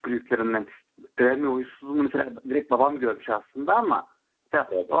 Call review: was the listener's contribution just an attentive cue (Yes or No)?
Yes